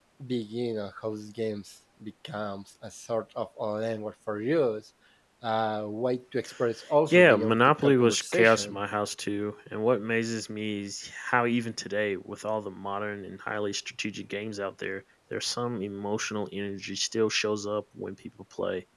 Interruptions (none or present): present